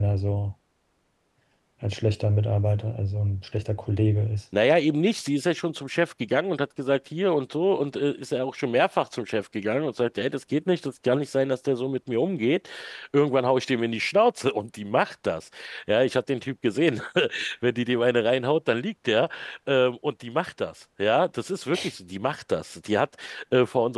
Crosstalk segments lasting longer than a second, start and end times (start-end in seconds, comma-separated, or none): none